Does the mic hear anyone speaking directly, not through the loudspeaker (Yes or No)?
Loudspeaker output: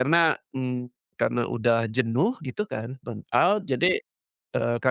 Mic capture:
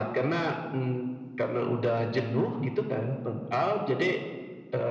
No